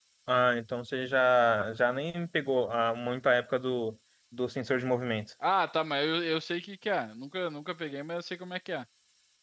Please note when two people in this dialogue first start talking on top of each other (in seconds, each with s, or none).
none